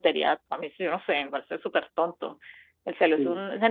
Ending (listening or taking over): listening